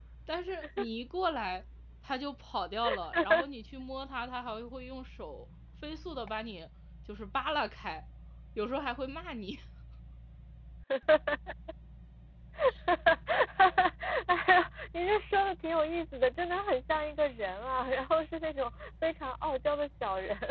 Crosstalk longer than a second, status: none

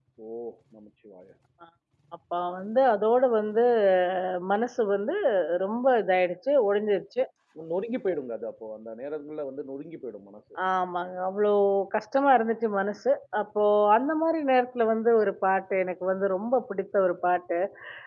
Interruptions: none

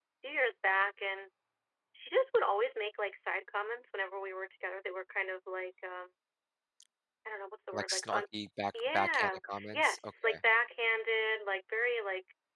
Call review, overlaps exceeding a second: present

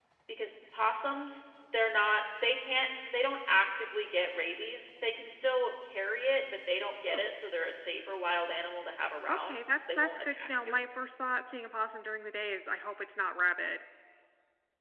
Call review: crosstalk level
present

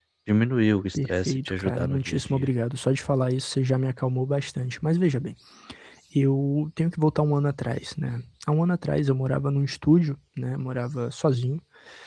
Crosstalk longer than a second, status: present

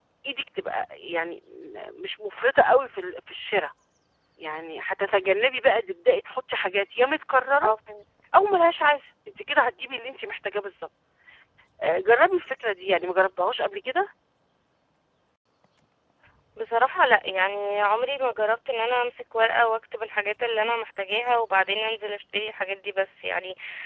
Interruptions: none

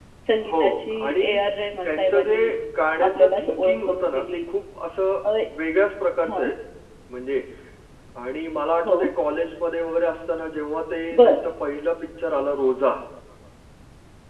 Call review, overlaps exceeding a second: present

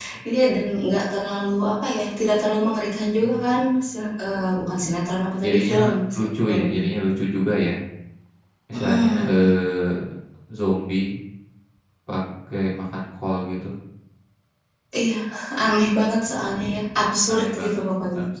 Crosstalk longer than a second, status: present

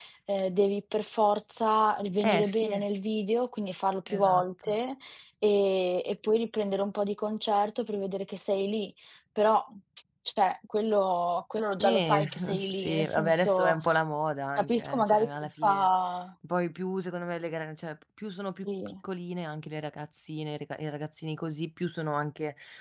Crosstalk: present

